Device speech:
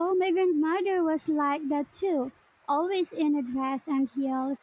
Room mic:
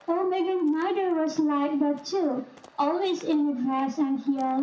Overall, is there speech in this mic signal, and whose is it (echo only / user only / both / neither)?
echo only